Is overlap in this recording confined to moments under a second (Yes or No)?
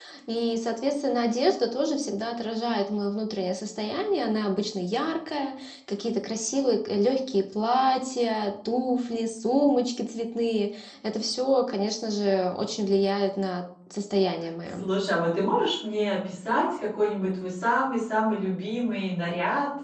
Yes